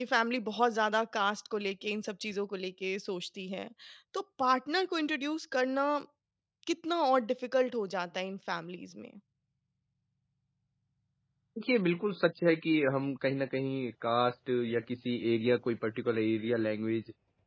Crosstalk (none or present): none